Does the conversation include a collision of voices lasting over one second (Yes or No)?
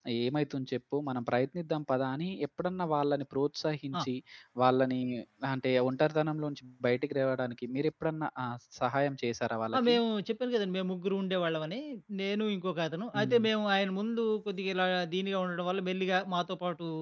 No